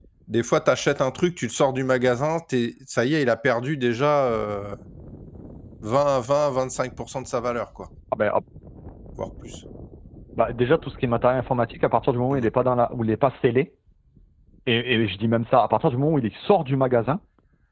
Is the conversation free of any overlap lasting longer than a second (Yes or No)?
Yes